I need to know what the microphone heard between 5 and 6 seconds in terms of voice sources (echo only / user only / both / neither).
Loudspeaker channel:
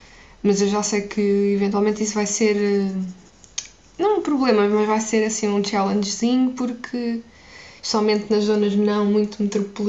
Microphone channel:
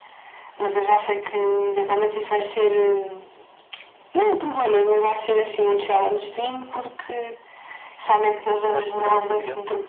echo only